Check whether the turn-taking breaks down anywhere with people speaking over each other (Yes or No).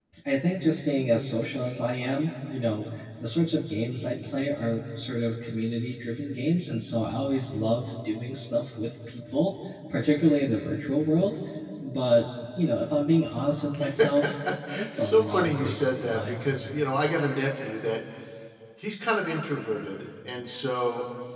Yes